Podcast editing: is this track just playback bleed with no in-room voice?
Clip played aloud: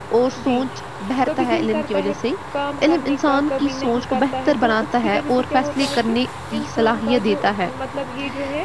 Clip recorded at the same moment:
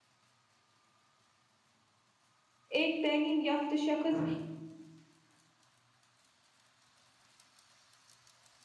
No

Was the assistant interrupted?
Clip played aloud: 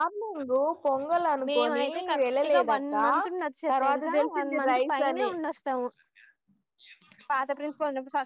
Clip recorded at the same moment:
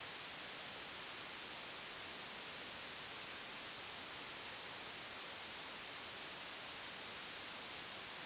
No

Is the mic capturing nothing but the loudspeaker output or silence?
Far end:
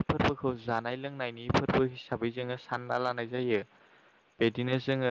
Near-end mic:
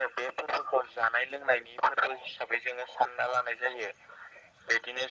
Yes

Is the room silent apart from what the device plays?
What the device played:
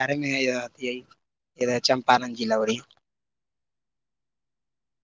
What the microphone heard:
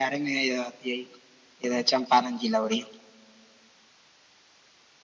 Yes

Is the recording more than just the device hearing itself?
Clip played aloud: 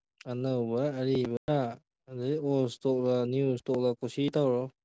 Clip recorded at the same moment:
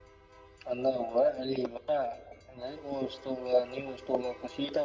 No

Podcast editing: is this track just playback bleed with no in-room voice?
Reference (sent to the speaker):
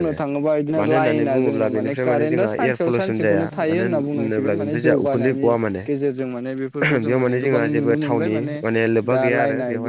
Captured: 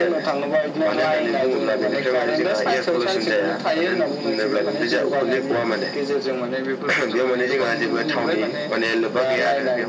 Yes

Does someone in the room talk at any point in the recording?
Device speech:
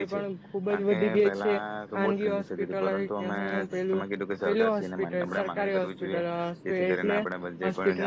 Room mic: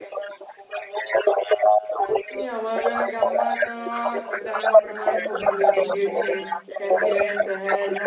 Yes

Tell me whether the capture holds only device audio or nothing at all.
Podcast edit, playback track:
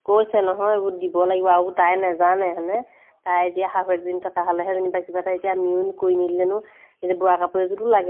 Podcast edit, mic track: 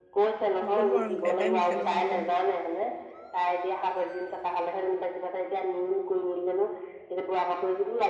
No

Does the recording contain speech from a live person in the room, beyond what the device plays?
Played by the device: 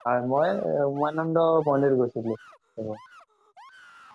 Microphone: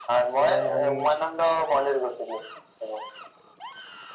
Yes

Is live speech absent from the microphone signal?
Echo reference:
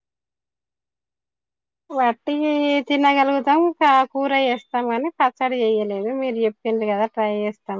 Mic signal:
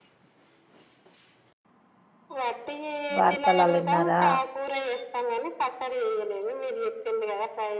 No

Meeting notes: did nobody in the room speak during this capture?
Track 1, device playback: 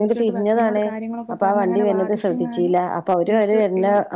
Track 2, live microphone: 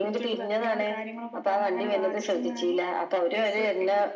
Yes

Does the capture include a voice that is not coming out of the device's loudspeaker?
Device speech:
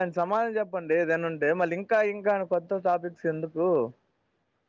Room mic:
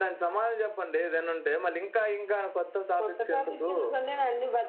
Yes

